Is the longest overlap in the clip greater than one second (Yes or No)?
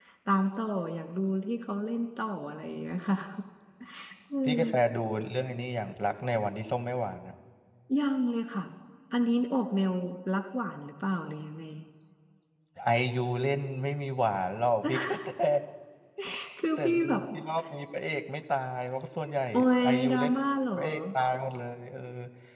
No